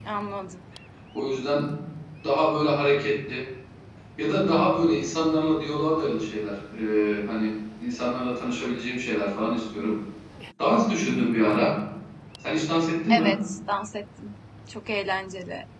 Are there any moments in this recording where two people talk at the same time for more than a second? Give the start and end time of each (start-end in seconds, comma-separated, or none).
none